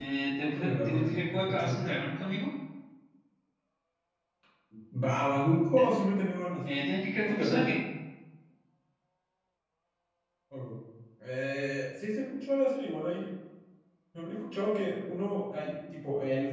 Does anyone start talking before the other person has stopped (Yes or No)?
Yes